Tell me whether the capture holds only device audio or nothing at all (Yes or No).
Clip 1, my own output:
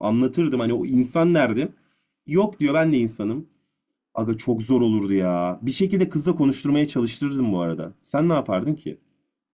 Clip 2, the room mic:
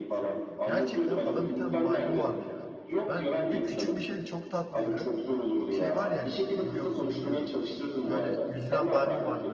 No